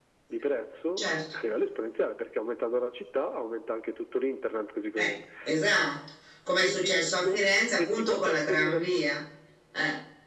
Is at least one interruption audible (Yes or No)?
Yes